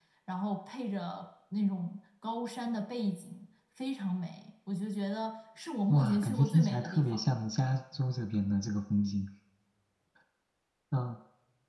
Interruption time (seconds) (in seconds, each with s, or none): 5.9 s